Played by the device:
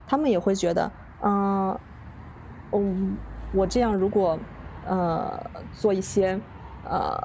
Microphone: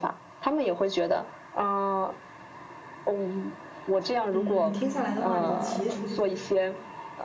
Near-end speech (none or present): present